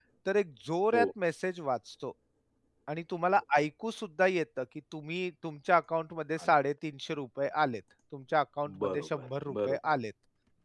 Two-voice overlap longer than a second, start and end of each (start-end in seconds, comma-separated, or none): 8.6-9.9